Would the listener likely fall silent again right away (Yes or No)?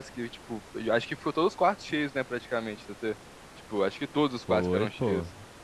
No